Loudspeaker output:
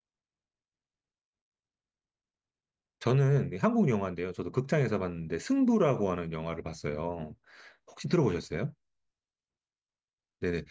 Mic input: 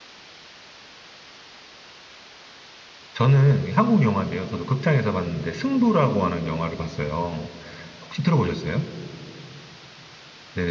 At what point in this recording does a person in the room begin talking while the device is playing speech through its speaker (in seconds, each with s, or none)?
none